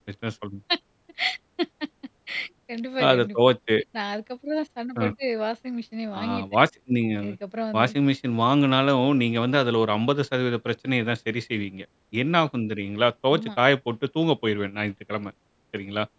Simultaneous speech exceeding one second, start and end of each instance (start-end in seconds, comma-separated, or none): none